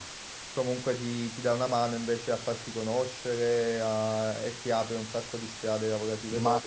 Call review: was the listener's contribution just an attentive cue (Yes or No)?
No